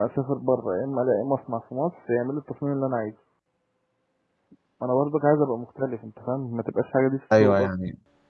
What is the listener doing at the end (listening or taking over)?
taking over